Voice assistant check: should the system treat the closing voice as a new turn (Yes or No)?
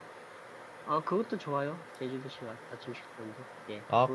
Yes